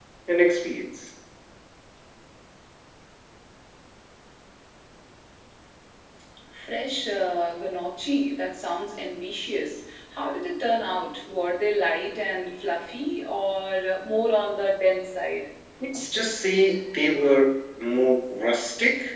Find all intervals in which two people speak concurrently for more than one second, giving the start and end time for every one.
none

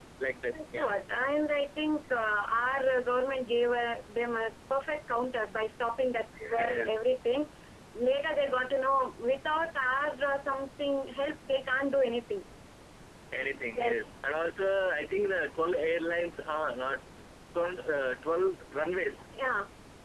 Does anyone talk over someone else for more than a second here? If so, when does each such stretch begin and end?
none

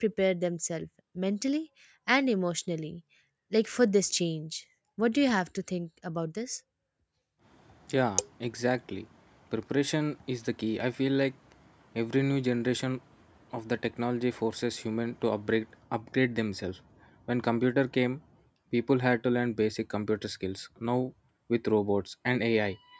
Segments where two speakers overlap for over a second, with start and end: none

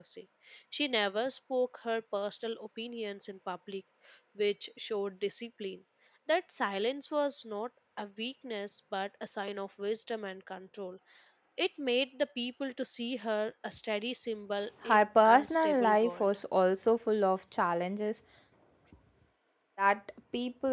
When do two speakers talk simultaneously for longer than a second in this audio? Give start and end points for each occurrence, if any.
14.8-16.4

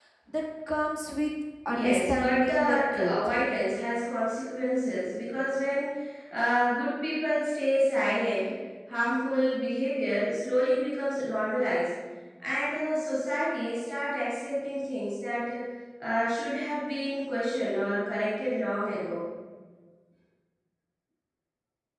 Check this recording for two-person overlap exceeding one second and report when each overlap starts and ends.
1.7-3.4

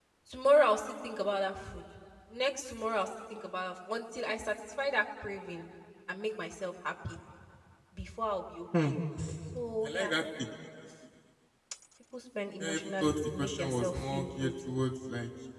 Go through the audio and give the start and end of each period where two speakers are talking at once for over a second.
12.6-14.5

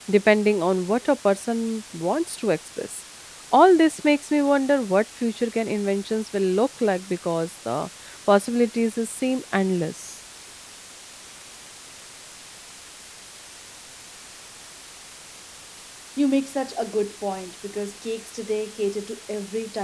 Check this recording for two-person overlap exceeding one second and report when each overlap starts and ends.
none

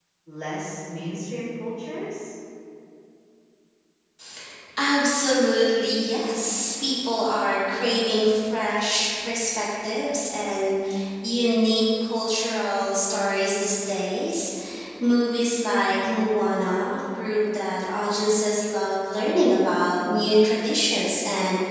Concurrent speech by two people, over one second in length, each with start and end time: none

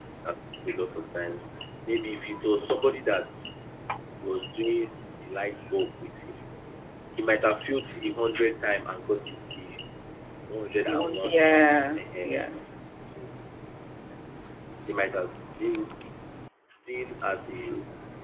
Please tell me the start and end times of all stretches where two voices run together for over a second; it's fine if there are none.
10.9-12.3

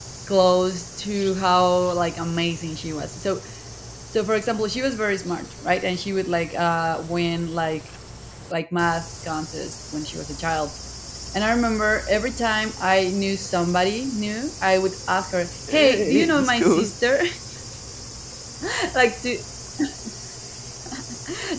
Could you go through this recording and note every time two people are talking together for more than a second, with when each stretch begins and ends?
15.7-16.9

